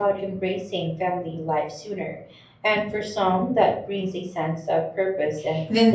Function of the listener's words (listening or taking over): taking over